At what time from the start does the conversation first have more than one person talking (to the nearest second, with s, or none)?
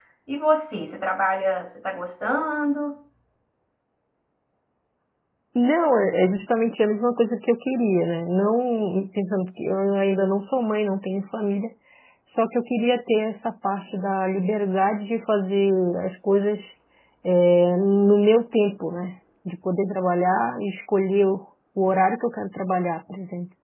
none